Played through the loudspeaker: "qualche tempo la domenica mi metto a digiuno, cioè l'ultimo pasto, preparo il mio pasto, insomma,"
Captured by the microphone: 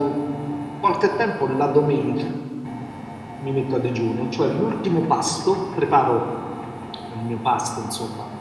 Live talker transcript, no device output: none

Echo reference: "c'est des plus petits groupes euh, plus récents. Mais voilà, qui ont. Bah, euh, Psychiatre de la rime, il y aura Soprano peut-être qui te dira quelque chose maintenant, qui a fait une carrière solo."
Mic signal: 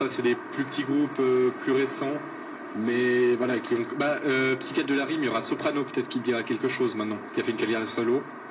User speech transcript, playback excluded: none

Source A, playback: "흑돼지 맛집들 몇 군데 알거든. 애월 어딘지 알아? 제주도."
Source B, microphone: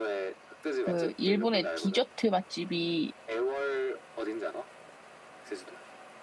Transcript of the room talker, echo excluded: 그, 일본의 디저트 맛집이

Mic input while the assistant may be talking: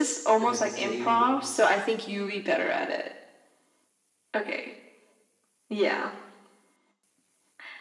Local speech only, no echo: that had the same

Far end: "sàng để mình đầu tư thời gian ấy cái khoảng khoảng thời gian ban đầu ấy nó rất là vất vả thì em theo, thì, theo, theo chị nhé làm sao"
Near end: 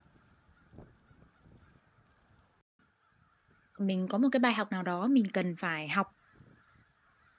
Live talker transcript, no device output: mình có một cái bài học nào đó mình cần phải học

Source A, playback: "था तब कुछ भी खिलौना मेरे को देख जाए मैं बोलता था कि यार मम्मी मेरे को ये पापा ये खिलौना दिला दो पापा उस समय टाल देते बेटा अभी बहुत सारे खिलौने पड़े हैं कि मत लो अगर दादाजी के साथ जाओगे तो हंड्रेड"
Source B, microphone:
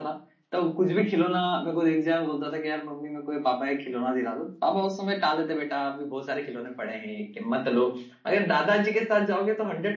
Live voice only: none

